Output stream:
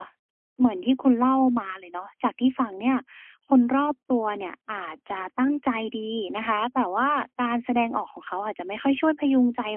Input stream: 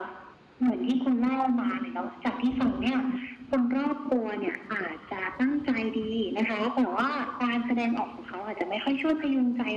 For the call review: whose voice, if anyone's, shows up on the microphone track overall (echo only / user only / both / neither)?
echo only